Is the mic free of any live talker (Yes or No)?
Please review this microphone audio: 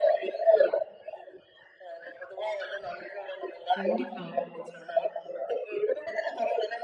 No